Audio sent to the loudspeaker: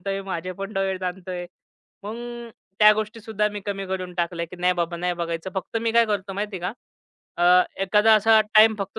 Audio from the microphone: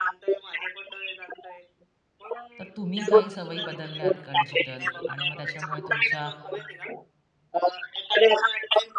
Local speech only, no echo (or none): तर तुम्ही काही सवयी बदलल्या आहेत का डिजिटल आणि मग त्याच्यामुळे तुमच्या